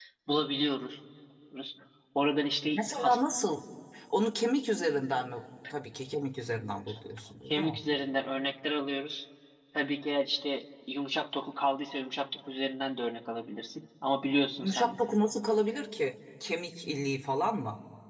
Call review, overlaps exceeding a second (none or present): none